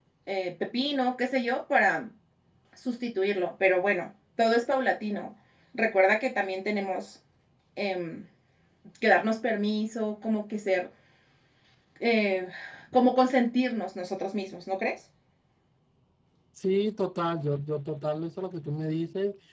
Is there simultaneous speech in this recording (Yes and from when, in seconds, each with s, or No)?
No